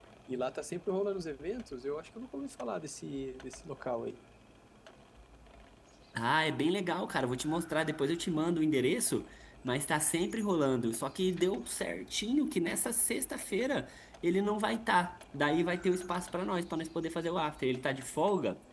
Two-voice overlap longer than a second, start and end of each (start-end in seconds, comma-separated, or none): none